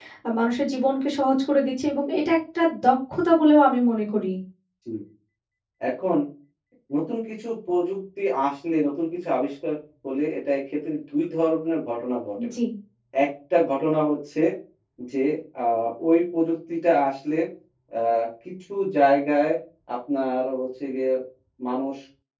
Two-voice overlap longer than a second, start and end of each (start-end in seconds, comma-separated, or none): none